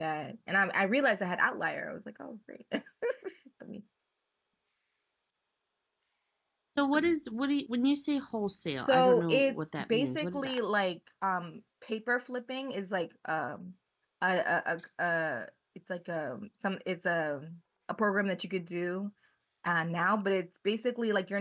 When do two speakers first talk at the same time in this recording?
9 s

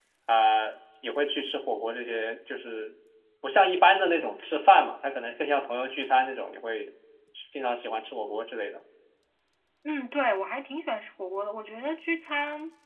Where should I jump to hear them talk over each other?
none

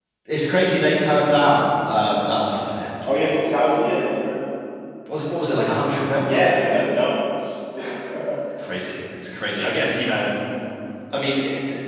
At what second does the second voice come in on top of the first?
none

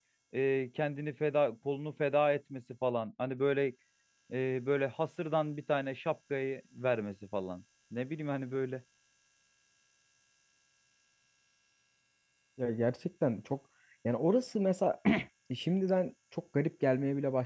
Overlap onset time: none

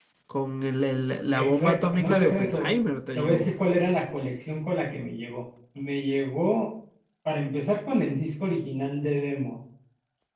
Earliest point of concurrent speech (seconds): 1 s

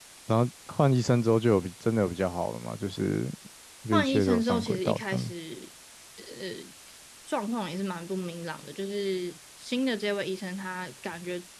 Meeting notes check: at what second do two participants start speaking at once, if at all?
4 s

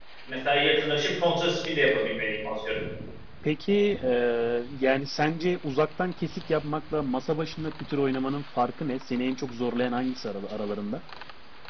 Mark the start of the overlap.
none

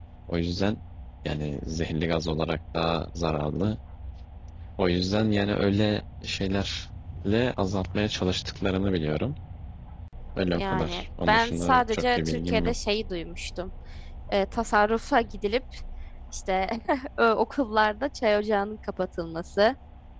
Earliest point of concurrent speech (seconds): 11 s

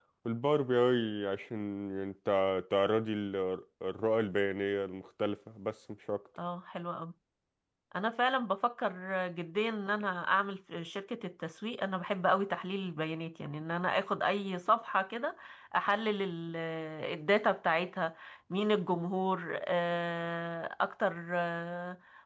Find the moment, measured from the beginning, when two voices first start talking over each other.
none

